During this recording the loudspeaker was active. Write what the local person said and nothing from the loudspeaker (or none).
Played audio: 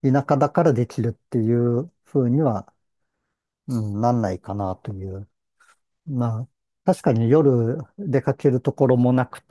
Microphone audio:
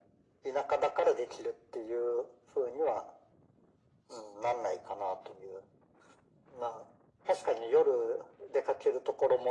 none